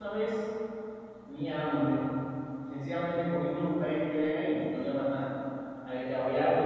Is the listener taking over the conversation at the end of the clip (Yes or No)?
No